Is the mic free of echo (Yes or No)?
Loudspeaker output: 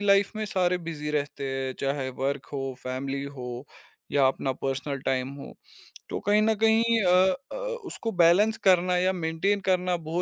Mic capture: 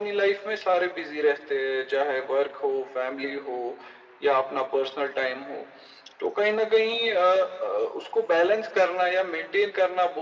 No